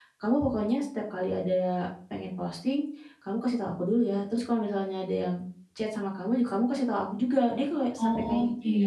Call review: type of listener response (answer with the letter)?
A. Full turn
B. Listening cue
A